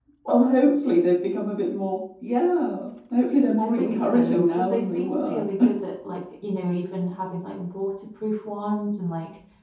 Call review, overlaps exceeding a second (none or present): present